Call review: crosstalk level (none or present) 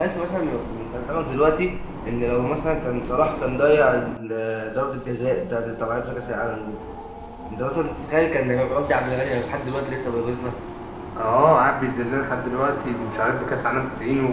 none